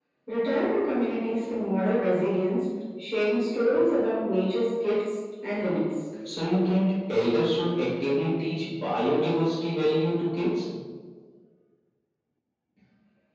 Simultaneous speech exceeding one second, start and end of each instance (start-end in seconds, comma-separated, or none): none